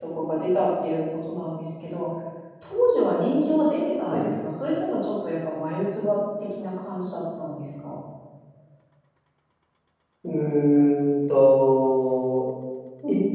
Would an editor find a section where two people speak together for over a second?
No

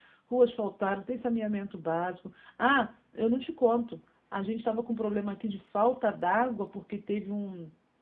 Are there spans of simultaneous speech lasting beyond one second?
No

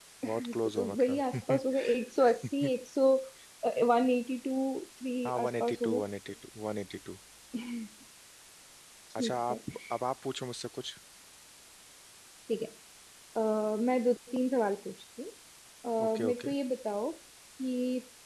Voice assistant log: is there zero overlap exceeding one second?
No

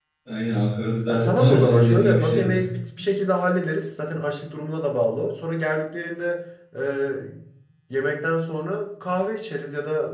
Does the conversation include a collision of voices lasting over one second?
Yes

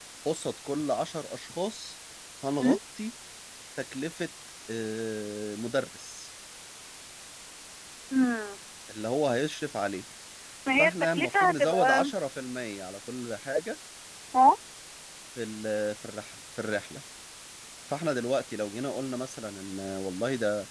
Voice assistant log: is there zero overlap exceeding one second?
No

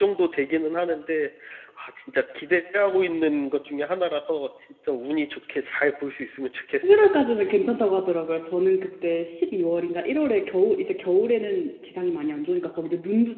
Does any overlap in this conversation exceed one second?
No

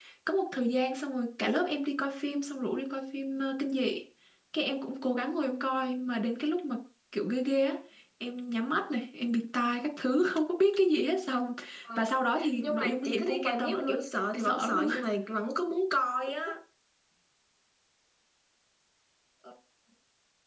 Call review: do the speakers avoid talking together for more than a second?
No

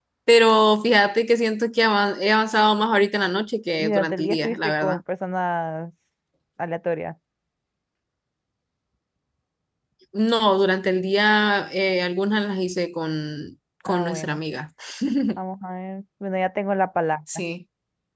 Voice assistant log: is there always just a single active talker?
No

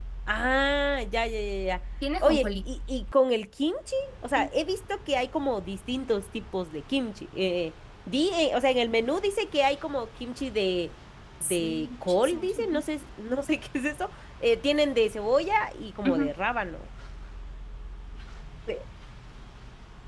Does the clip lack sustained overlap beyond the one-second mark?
No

